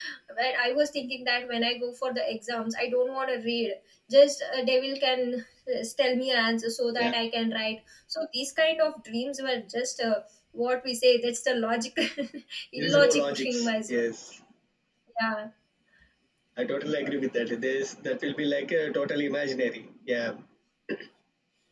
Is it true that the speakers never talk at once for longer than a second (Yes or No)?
No